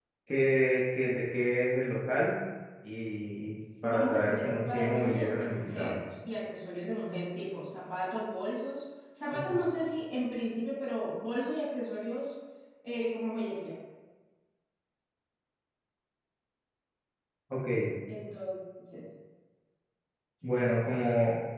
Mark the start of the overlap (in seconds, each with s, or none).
3.9 s